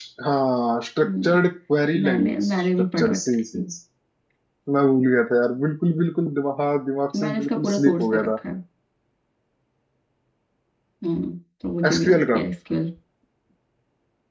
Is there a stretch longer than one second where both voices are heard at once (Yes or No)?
Yes